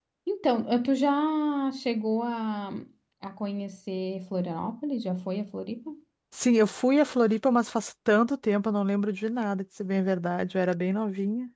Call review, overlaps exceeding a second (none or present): none